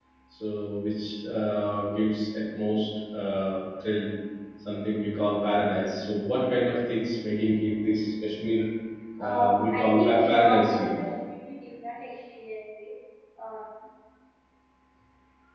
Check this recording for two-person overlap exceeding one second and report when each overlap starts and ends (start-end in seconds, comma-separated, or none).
9.2-11.0